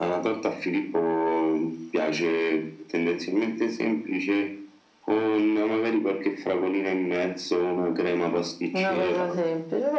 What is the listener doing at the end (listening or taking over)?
taking over